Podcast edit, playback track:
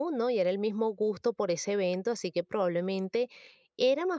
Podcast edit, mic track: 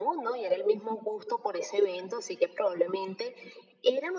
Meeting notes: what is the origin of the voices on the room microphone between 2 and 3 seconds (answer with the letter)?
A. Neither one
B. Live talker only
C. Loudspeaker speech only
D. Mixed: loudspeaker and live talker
C